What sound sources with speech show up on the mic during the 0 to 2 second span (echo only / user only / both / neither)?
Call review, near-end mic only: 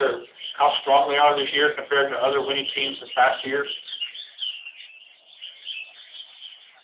echo only